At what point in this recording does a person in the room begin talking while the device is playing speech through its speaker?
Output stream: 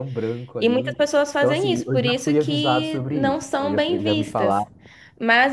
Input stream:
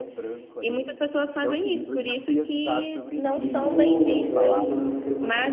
3.3 s

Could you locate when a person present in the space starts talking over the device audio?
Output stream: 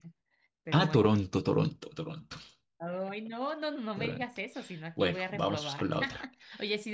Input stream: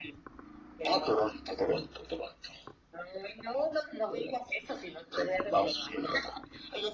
none

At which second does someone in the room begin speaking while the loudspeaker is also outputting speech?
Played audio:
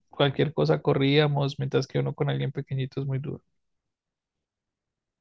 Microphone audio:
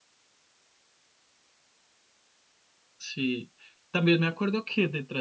3.0 s

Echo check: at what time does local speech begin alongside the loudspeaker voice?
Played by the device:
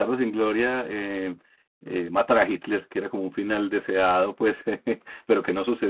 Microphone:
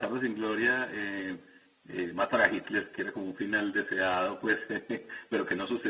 none

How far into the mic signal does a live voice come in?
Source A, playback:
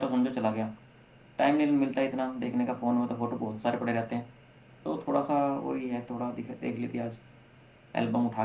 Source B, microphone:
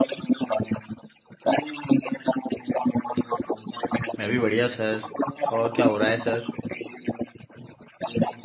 4.2 s

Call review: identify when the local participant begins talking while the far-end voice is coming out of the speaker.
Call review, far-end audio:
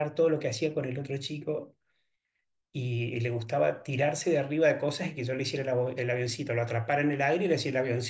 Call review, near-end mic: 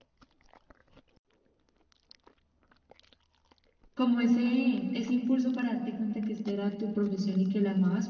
3.9 s

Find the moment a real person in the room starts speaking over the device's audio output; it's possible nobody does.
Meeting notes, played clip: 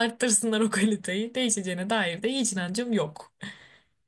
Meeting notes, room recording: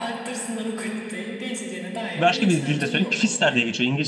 2.2 s

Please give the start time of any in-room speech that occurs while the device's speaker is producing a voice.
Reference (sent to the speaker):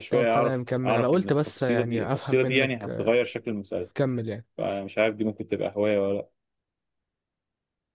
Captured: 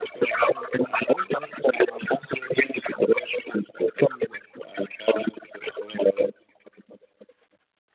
none

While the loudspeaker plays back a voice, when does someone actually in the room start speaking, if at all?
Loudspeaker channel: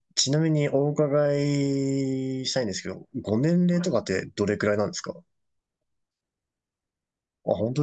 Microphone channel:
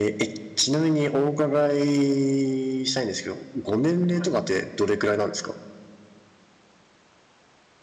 none

